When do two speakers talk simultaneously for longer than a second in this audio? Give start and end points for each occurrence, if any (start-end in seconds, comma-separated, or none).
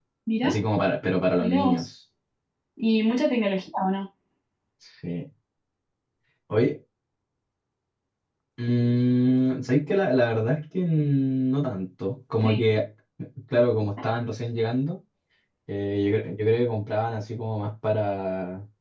none